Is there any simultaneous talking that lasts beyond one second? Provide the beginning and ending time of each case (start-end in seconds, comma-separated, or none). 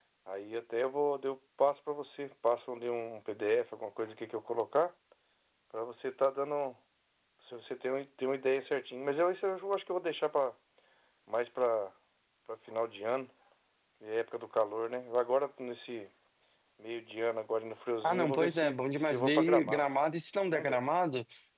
18.0-19.8